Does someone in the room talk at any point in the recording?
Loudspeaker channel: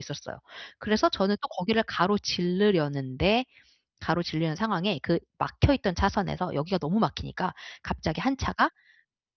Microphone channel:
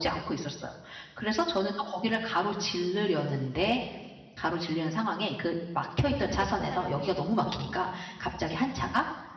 Yes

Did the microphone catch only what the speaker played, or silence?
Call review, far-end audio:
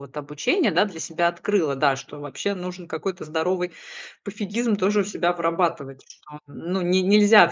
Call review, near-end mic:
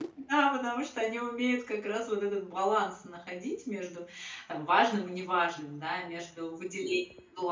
No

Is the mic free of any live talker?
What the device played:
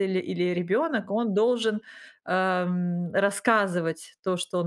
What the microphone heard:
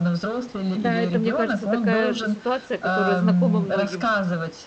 No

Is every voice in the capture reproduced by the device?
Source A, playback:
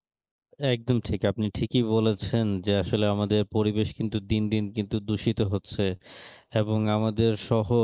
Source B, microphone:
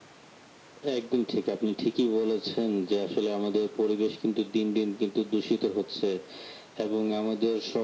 Yes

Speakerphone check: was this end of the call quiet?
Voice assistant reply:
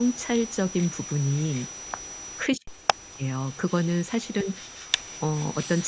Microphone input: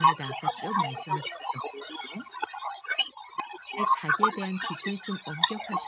No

